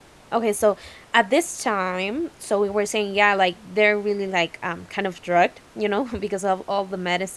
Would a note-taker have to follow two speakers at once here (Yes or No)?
No